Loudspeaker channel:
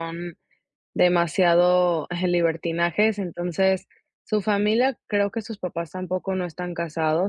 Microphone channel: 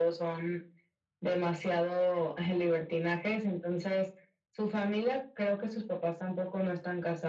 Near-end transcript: none

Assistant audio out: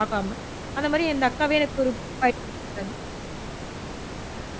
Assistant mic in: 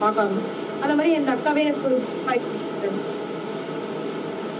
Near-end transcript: none

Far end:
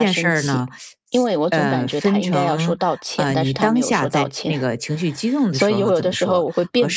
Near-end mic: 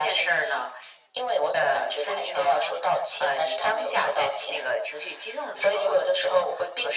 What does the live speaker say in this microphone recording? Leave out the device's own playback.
none

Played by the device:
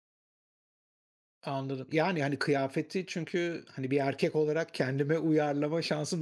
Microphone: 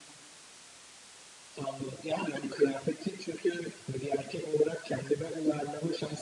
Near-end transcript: none

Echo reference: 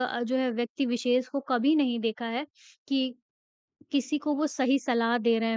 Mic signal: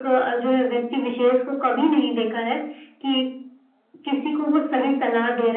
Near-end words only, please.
none

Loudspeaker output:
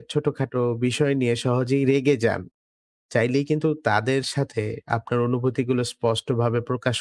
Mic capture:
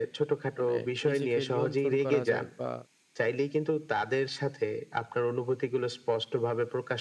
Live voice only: মানে নিজেকে নিয়ন্ত্রণ করা যায় বা

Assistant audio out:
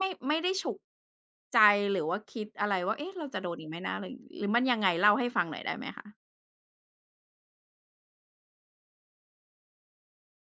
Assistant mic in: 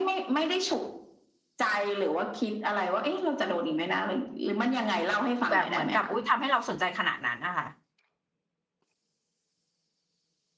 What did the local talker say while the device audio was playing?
แบบเหมือนกับอุ๊ยทำให้เราสนใจขนาดนั้นอะค่ะ

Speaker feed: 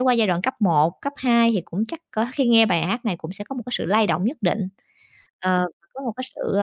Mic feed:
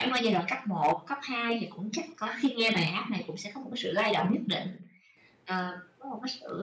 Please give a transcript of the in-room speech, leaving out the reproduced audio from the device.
none

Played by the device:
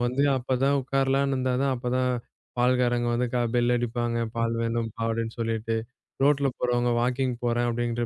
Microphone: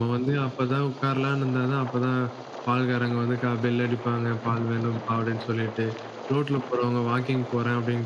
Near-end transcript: none

